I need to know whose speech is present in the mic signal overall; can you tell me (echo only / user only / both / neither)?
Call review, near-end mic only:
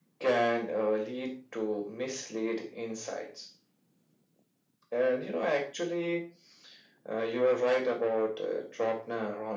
echo only